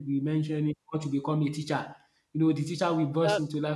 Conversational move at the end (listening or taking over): listening